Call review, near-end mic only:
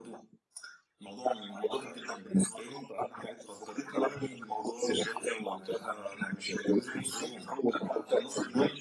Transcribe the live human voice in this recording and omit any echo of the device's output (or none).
none